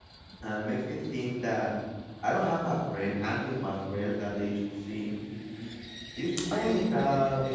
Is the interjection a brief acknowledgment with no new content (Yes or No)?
Yes